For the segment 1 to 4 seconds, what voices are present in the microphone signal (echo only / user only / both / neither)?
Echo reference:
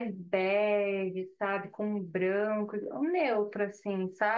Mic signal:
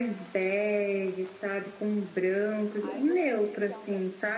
both